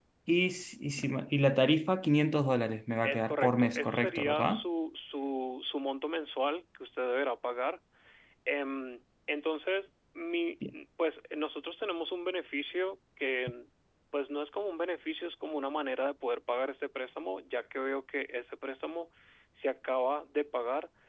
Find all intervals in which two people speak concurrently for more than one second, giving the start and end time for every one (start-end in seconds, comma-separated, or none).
3.0-4.6